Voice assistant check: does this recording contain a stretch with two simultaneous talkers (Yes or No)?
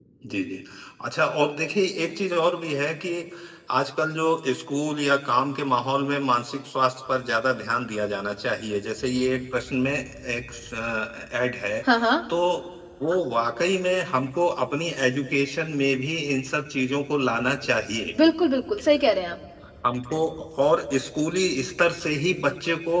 No